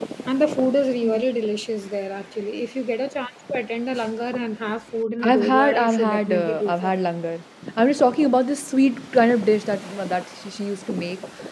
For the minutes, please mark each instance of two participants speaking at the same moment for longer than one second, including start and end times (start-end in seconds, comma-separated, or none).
5.2-7.0